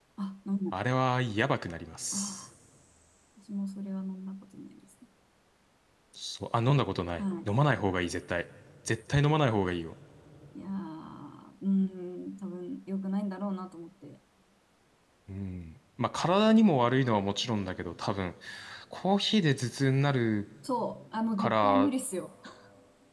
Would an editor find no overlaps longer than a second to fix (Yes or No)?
Yes